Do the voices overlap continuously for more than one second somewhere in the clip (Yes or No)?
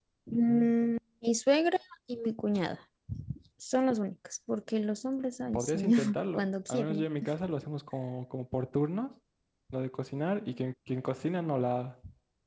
Yes